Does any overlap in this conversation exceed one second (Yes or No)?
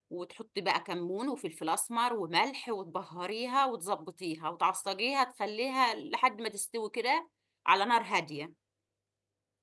No